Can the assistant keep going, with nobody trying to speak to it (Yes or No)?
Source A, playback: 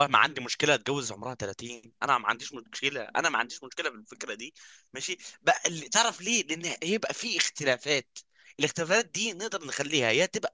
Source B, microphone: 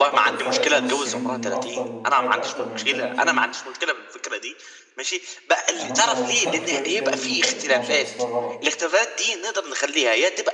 No